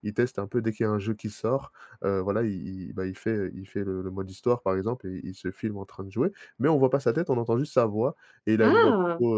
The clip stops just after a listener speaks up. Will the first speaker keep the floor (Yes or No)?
Yes